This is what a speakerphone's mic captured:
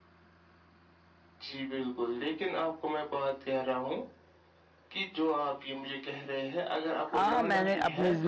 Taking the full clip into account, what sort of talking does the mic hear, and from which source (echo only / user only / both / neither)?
both